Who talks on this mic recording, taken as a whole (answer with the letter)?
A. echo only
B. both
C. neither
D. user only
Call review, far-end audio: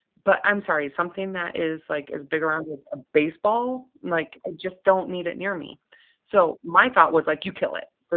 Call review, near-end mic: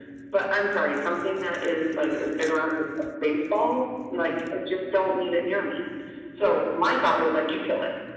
A